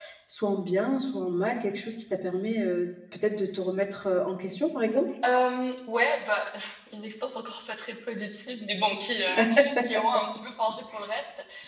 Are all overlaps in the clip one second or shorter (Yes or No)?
Yes